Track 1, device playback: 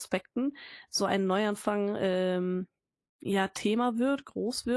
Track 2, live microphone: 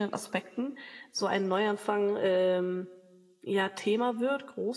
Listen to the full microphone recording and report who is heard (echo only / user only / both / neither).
echo only